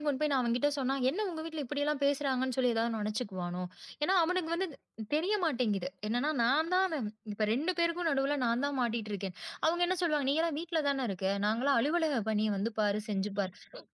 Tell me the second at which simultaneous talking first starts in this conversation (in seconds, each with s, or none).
none